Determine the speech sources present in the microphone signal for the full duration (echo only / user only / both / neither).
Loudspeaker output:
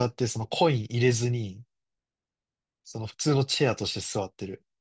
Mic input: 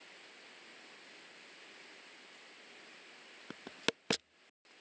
neither